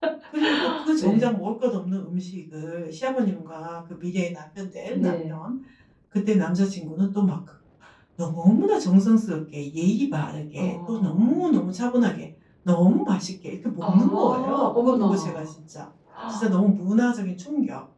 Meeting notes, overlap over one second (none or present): present